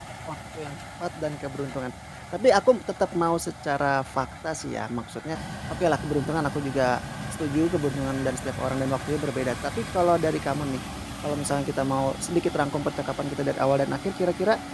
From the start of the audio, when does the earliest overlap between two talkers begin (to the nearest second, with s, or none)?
none